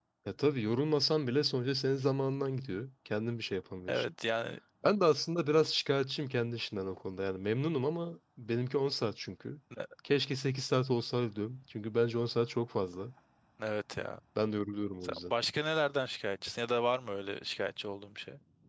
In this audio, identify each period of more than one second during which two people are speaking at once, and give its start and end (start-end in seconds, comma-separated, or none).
none